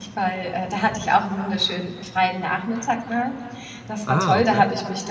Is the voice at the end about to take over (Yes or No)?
No